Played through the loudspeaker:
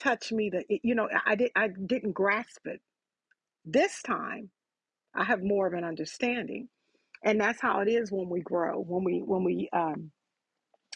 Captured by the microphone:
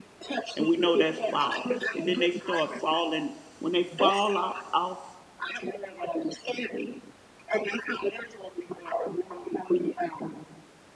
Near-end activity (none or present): present